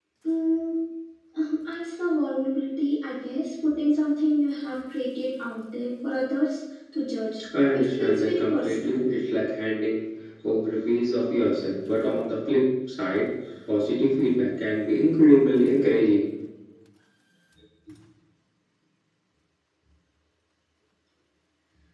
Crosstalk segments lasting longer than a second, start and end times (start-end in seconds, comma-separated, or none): 7.7-9.1